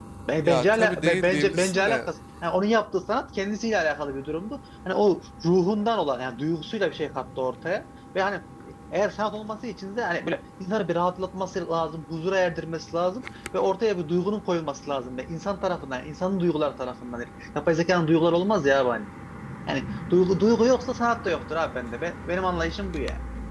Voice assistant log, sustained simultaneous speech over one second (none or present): present